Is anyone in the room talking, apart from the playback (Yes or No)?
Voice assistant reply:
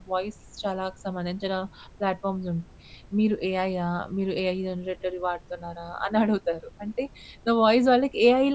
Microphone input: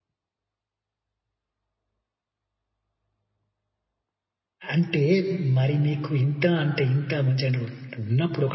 Yes